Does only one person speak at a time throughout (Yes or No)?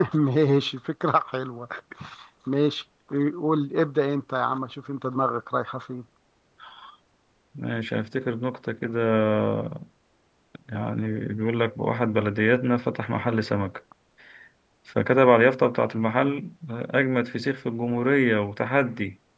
Yes